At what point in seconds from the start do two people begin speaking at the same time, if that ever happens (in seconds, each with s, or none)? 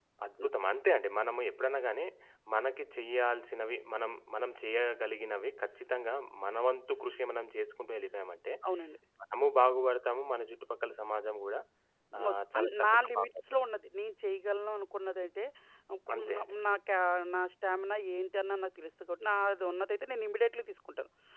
12.2 s